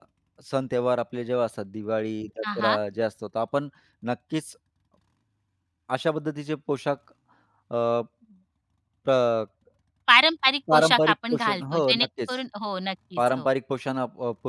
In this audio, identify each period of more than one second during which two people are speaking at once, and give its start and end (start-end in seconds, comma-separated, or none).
10.7-12.3